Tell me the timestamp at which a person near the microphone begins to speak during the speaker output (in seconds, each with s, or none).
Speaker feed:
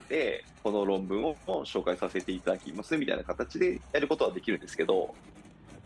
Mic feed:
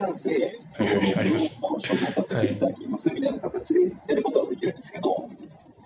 0.7 s